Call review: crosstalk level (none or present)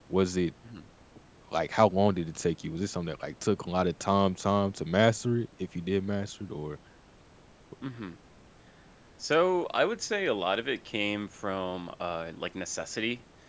none